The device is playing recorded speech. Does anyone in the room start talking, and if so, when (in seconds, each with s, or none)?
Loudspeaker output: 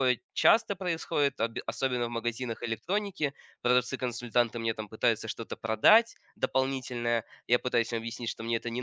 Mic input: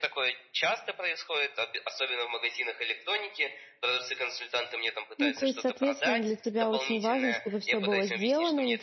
5.2 s